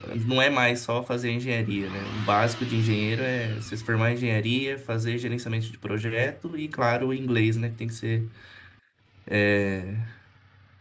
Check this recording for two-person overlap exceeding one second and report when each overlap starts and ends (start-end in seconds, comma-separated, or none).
none